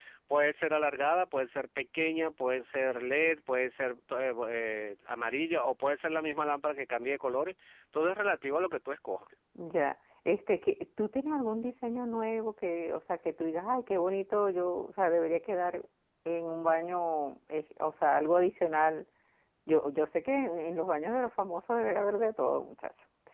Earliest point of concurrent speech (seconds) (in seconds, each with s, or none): none